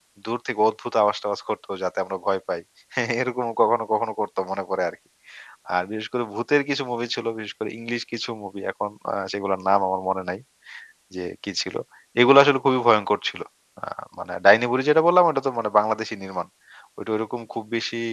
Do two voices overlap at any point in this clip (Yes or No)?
No